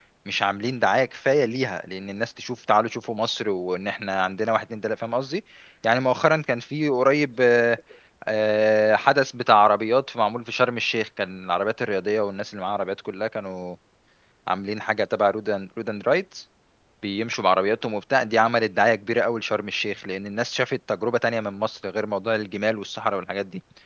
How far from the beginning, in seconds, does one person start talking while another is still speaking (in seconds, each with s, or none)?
none